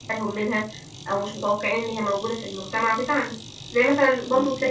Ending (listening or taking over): listening